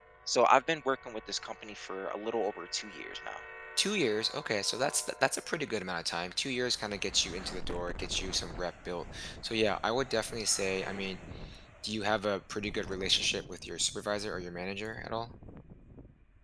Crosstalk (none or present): none